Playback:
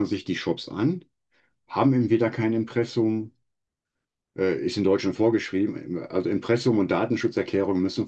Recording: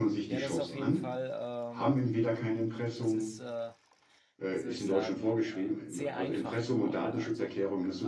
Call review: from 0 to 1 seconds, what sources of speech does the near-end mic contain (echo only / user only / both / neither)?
both